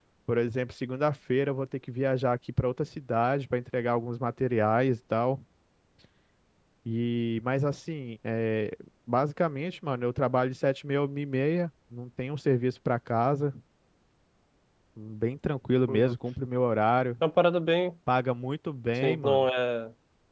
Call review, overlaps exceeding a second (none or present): none